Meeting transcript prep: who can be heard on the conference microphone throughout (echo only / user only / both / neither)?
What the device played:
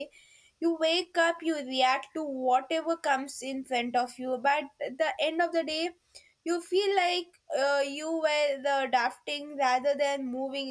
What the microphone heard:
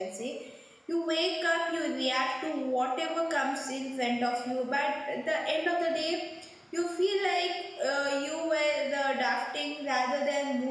echo only